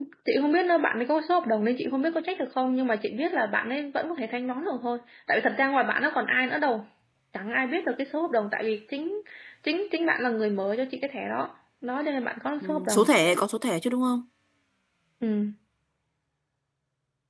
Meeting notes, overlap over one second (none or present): none